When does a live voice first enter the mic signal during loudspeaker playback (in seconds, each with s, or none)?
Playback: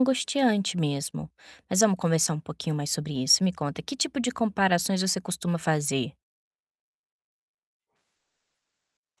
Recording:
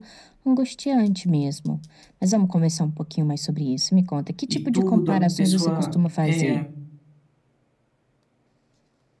4.5 s